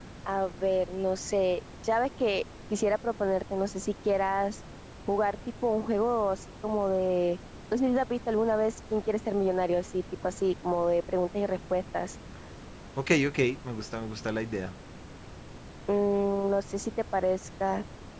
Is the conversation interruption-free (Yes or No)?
Yes